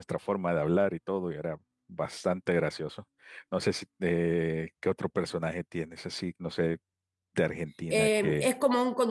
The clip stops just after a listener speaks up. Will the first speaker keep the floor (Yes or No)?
No